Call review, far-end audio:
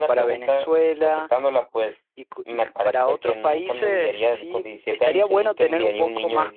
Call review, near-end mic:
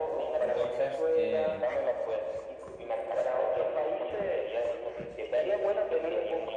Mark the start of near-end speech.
0 s

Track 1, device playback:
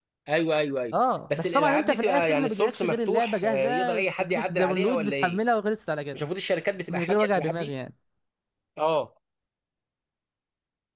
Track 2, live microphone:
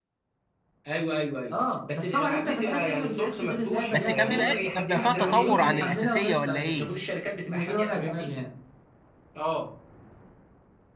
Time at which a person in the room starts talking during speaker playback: 4 s

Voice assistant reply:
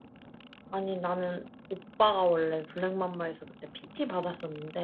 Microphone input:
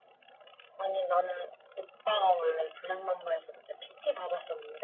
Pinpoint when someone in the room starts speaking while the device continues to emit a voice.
none

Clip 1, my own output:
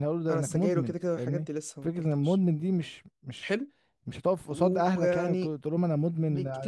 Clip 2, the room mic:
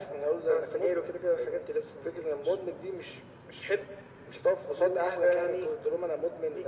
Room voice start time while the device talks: none

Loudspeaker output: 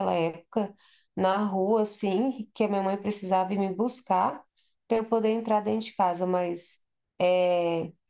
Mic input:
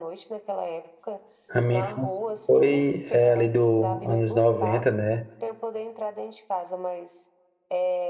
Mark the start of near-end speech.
1 s

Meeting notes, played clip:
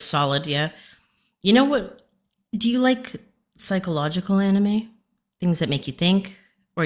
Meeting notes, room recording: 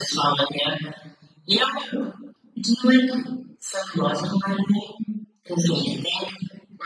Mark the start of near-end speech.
none

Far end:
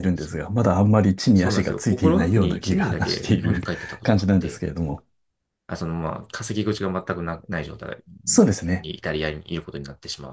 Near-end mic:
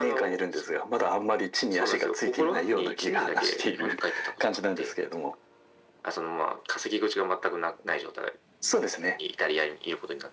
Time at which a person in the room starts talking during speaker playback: none

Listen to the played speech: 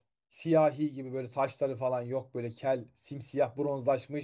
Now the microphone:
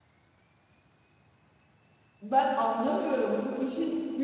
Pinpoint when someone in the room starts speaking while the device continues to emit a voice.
2 s

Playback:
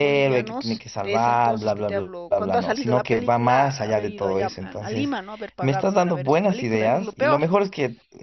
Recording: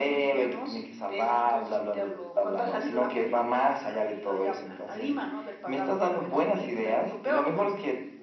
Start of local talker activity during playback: none

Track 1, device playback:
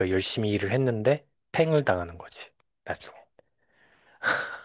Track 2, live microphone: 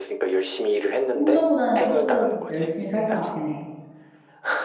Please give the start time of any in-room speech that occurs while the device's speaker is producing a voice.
1 s

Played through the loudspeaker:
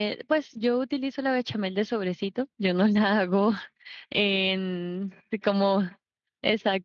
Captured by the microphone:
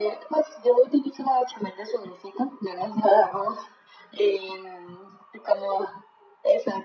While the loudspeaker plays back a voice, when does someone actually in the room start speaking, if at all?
none

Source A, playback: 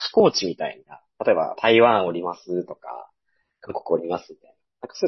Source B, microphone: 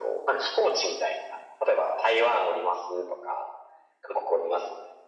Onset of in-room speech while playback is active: none

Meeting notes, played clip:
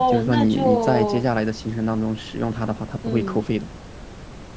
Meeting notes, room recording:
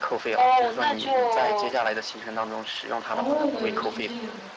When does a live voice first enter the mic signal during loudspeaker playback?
3 s

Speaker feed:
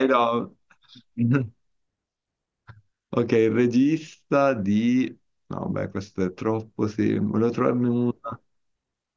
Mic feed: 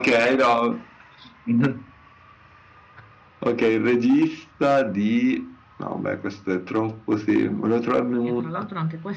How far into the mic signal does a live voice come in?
8 s

